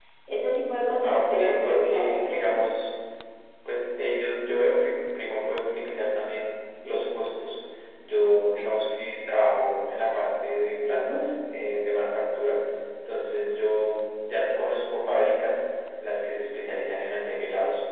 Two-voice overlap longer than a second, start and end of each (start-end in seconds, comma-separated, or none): 1.0-2.6